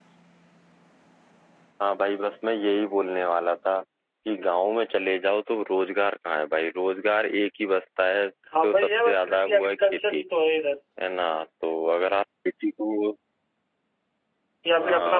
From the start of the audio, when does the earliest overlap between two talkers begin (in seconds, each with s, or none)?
8.6 s